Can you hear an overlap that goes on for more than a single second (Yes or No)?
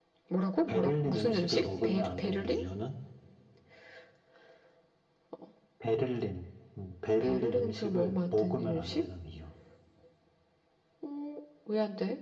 Yes